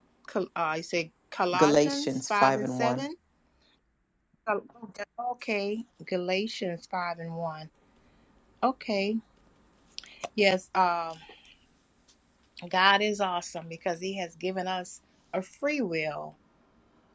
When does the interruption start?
2 s

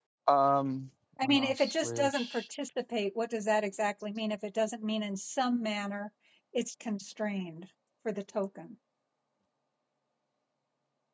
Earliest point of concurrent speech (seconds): 1 s

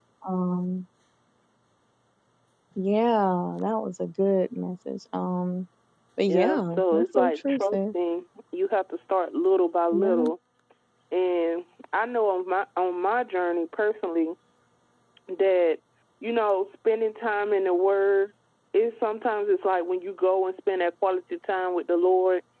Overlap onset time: 6 s

